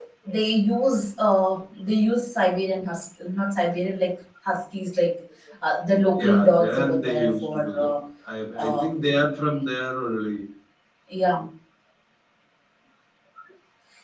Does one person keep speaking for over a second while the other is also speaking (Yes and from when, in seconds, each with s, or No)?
Yes, from 6.2 s